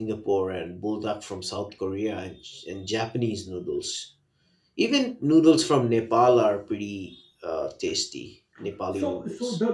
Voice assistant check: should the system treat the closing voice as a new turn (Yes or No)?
Yes